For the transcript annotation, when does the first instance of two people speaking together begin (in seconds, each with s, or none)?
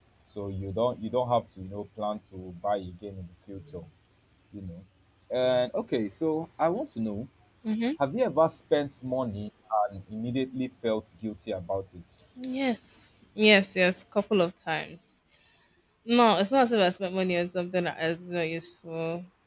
none